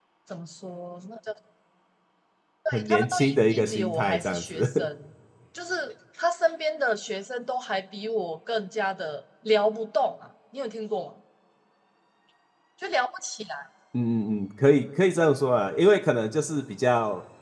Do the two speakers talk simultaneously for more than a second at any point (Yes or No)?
Yes